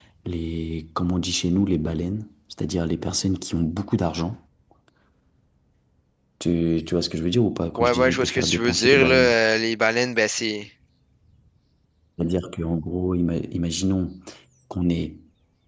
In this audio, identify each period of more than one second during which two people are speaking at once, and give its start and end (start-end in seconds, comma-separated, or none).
7.8-9.3